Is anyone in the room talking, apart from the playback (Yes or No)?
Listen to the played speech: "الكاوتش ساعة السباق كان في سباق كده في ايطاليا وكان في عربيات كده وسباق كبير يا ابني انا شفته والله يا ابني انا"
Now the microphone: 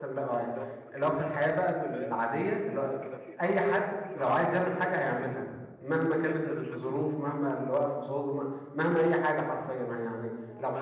Yes